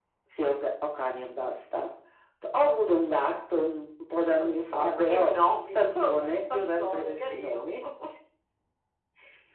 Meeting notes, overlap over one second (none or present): present